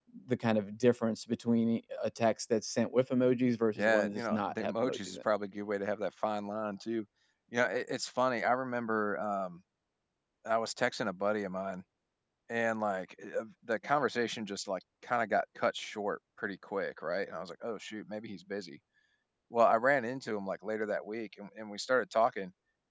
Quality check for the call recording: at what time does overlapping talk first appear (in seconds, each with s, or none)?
3.8 s